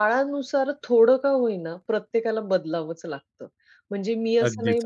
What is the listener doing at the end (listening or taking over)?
listening